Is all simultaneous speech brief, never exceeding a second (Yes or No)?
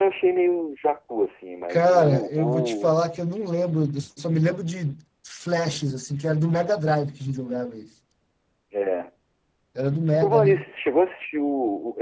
No